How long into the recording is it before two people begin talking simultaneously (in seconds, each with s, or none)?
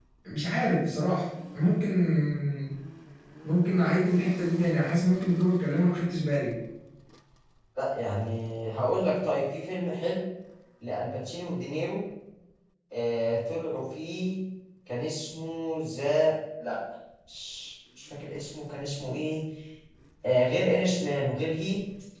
none